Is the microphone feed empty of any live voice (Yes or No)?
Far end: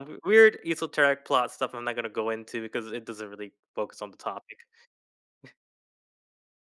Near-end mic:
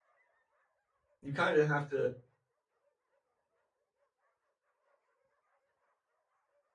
No